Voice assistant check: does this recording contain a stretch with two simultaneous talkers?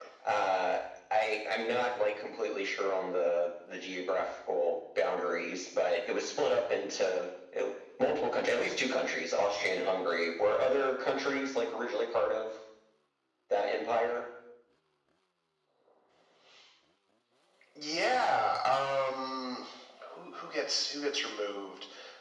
No

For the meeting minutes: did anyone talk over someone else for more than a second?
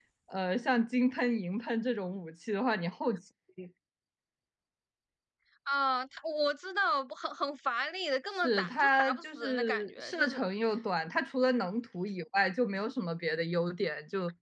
Yes, from 8.3 s

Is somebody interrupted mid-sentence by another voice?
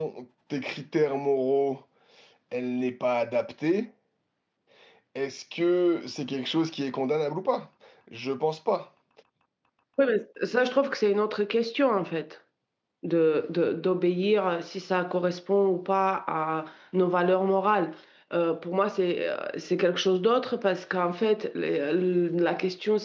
No

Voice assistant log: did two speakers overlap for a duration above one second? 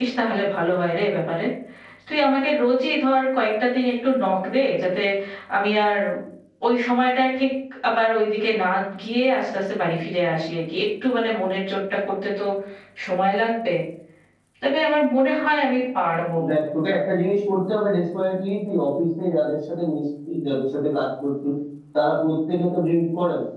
No

